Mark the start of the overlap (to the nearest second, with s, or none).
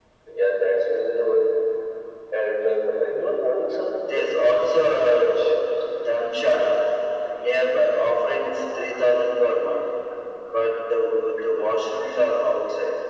4 s